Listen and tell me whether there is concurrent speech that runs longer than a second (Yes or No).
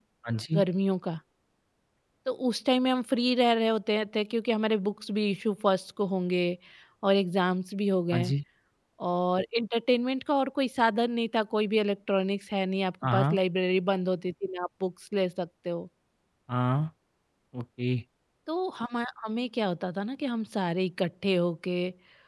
No